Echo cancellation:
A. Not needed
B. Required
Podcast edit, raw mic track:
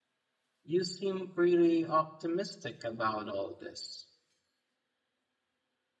A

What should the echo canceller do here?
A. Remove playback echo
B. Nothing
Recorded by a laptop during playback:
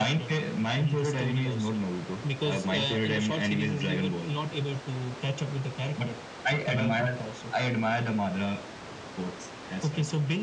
A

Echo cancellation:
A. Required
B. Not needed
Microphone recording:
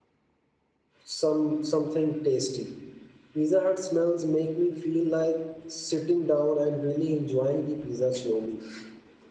B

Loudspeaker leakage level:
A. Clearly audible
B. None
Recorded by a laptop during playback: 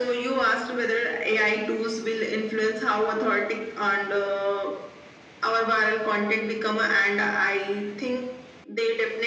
A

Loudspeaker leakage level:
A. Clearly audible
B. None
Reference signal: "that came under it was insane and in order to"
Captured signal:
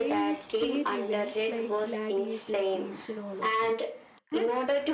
A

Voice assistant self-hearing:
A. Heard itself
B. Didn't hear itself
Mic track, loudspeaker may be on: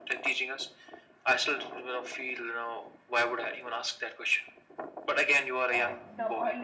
A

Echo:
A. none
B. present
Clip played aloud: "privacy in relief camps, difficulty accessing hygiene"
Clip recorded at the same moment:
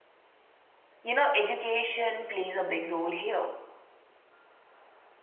A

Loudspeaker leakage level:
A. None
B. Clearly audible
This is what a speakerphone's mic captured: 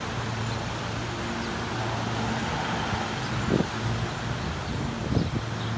A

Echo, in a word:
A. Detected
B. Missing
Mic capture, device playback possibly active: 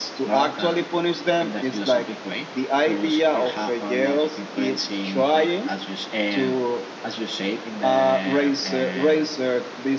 A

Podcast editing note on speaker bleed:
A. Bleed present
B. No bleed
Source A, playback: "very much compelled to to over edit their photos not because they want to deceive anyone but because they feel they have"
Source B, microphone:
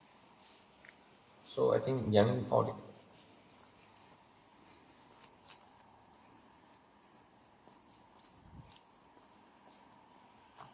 B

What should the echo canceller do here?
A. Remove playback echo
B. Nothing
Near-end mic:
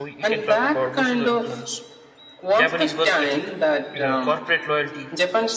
A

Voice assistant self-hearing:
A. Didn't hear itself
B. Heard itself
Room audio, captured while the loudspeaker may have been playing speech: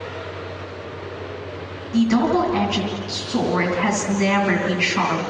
A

